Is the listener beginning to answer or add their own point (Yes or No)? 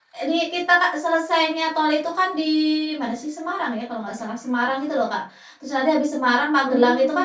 No